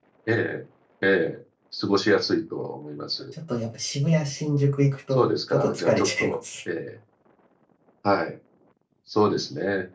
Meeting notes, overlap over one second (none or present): present